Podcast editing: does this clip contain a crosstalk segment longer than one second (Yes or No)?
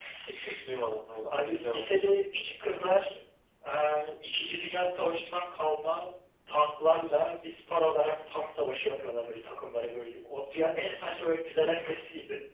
No